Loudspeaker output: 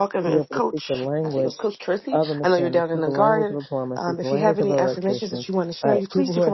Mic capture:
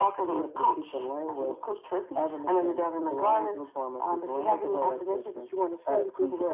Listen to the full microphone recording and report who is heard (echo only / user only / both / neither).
echo only